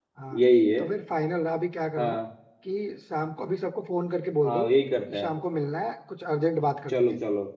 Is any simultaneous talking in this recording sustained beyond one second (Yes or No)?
No